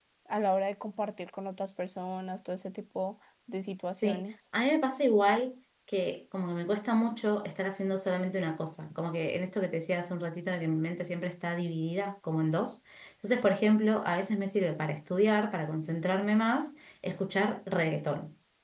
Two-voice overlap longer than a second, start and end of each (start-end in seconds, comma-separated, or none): none